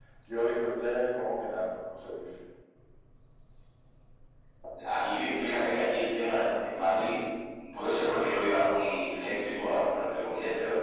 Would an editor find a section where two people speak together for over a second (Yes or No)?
No